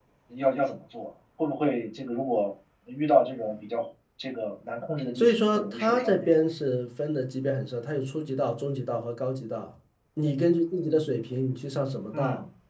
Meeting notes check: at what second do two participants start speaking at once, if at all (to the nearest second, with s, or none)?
5 s